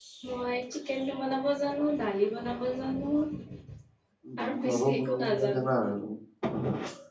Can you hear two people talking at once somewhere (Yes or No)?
Yes